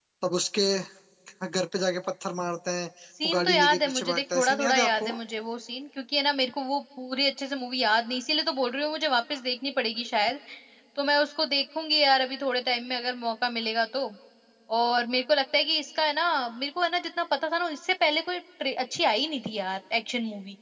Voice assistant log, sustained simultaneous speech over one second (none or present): present